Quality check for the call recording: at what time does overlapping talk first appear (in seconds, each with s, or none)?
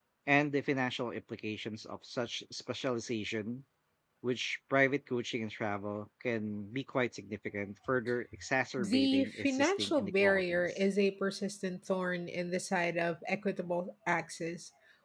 8.8 s